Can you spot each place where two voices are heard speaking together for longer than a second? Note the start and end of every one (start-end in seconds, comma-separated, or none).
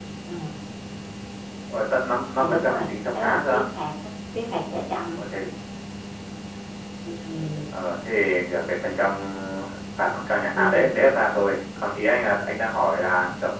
2.4-3.6